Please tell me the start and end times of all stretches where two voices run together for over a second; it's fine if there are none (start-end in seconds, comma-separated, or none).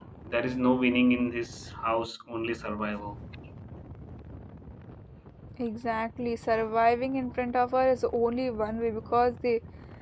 none